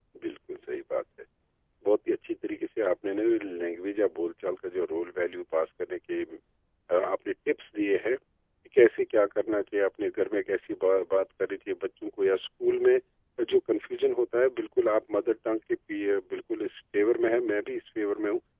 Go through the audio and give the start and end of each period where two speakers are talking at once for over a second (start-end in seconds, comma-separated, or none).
none